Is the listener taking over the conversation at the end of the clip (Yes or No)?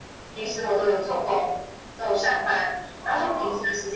No